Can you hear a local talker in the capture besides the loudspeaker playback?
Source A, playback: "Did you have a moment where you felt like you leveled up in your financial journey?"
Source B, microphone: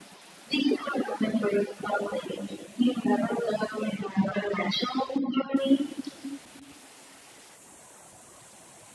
No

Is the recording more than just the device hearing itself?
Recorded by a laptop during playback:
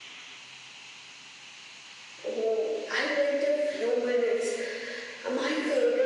No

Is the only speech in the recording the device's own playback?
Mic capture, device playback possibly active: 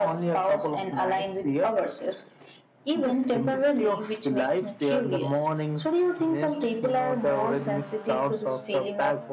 Yes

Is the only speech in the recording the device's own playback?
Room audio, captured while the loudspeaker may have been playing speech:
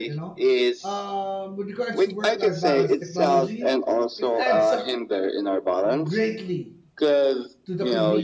No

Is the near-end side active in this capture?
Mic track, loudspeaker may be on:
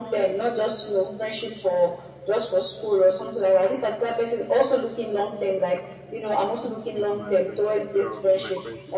Yes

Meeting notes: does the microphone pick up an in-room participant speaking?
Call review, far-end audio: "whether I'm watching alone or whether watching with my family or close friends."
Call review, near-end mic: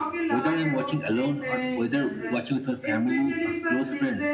Yes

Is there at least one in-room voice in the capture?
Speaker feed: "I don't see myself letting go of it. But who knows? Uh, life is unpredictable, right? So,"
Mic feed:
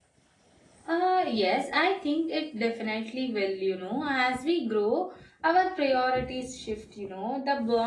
Yes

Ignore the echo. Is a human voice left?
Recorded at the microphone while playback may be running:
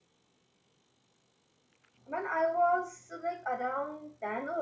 Yes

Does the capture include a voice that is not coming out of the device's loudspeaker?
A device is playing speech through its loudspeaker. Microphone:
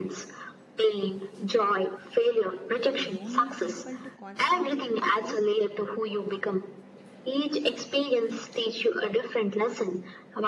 Yes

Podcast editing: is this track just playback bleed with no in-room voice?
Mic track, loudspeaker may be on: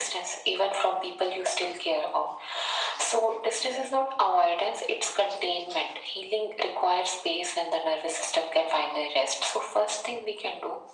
Yes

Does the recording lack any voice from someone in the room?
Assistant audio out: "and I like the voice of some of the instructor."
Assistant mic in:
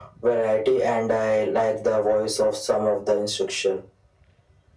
Yes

